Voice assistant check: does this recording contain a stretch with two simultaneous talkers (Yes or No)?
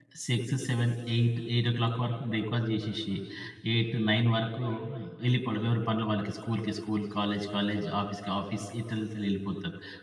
No